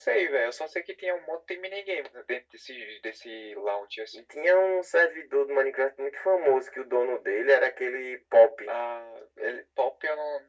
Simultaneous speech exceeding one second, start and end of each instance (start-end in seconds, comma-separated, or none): none